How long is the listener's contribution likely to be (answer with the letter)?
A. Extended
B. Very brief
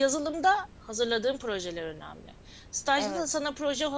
B